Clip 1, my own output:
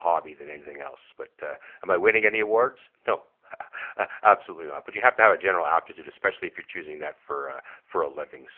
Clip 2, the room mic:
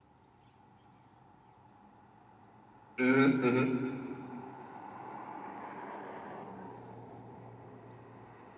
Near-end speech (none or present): present